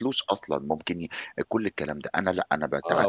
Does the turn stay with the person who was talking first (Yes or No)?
No